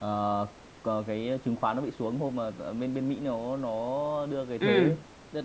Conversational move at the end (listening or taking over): listening